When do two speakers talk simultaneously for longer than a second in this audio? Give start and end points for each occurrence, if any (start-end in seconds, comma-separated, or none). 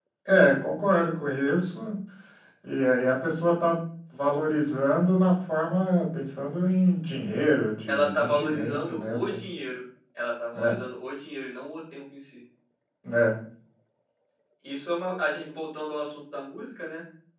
7.9-9.4